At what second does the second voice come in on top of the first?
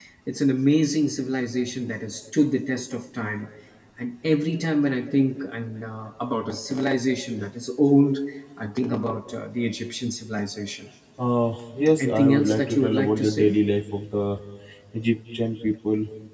12.0 s

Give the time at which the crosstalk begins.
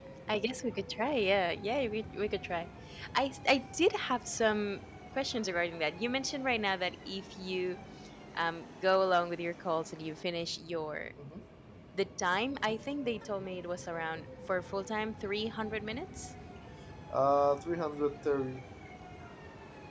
none

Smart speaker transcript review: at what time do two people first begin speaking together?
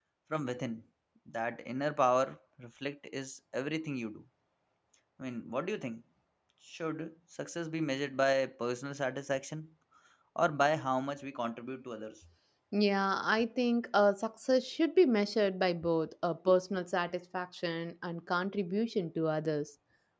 none

